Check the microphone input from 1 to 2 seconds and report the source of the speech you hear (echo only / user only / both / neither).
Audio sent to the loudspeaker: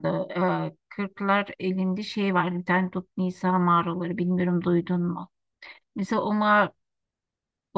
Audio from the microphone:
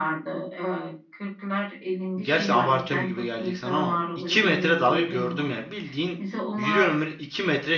echo only